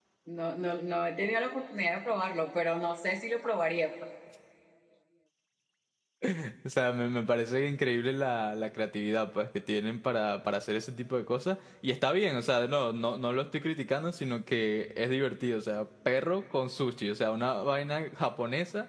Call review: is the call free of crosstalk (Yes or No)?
Yes